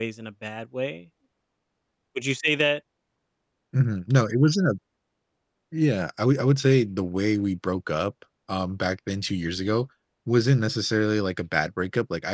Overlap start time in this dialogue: none

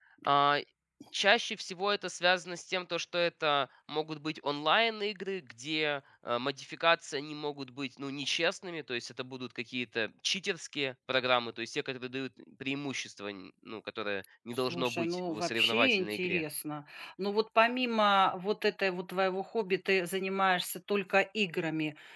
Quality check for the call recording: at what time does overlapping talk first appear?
14.5 s

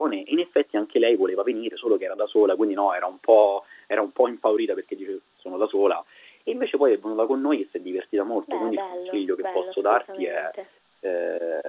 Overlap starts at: 8.5 s

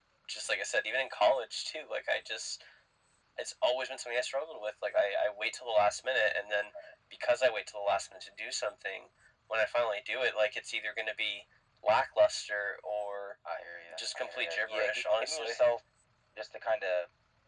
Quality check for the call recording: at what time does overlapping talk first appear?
13.9 s

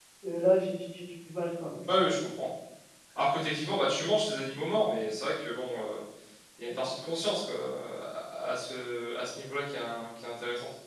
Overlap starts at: none

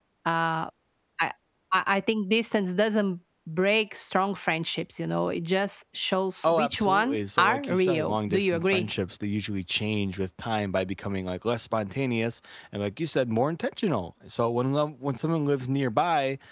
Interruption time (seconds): 6.4 s

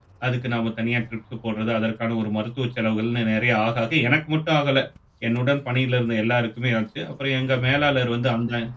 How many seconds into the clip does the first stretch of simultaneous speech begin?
none

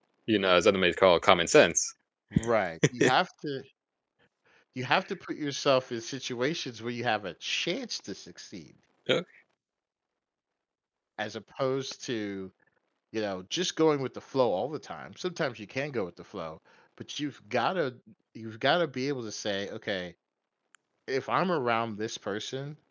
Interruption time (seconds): none

